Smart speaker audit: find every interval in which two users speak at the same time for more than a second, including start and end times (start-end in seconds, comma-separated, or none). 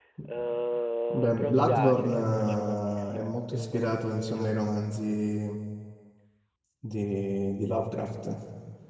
1.1-4.7